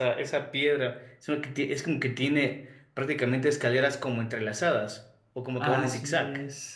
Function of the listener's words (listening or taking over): taking over